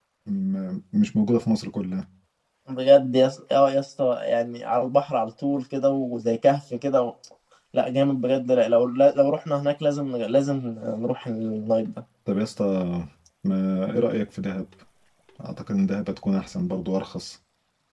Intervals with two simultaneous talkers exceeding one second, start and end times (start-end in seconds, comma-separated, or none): none